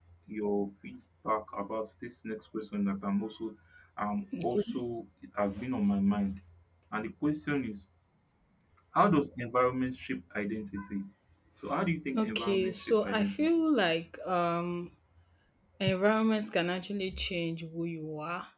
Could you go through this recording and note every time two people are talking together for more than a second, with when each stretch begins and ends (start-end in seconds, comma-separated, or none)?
12.2-13.5